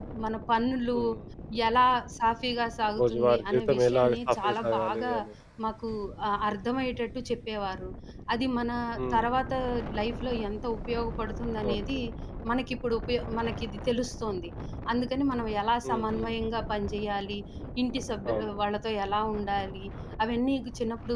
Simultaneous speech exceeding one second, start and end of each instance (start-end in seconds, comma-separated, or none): 3.0-5.1